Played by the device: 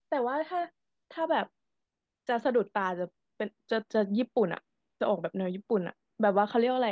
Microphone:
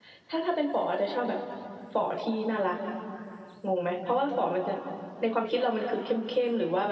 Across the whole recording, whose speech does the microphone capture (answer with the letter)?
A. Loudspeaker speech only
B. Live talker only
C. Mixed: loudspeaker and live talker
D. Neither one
B